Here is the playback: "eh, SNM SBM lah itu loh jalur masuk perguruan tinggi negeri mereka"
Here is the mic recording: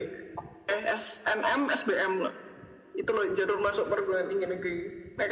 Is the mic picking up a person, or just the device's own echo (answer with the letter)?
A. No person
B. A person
A